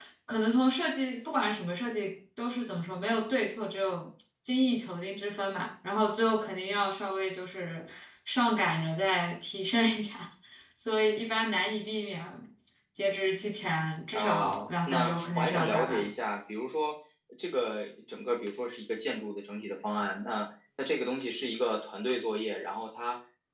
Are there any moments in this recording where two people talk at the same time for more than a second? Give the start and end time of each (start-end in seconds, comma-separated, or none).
14.1-16.1